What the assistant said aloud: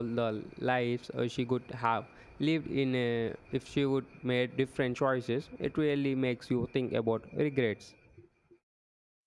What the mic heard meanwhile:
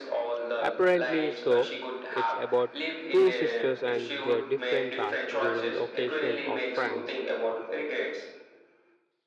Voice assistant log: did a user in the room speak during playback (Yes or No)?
Yes